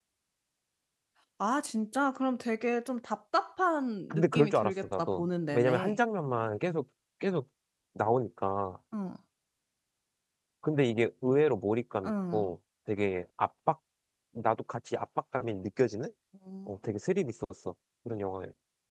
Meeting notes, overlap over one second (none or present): present